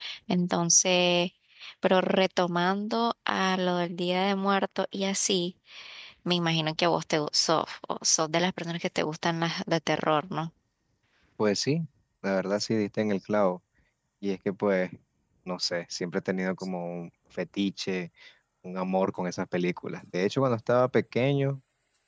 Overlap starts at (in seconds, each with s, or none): none